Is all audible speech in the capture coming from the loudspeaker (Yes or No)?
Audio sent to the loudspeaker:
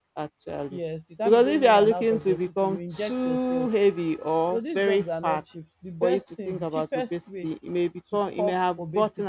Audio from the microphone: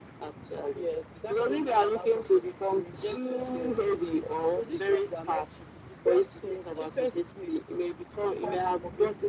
Yes